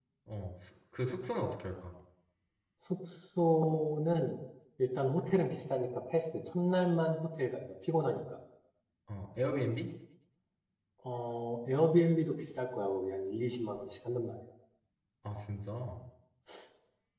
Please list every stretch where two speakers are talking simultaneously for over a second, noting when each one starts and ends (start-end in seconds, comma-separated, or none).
none